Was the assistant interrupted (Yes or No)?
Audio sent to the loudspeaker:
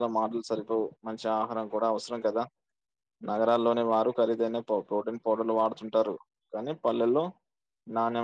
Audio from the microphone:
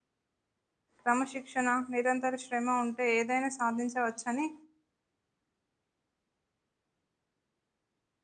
Yes